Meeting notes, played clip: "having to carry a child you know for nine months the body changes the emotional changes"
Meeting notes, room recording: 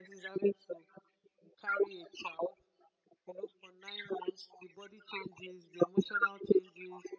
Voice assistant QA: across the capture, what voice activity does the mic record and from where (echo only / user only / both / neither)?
echo only